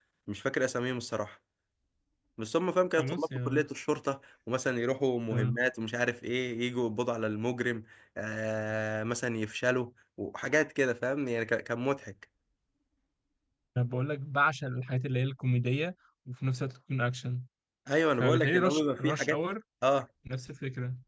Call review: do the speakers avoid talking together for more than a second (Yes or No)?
No